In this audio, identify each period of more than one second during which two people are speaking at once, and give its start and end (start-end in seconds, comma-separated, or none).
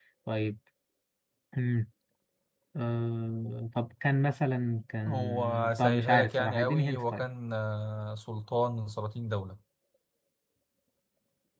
5.1-7.3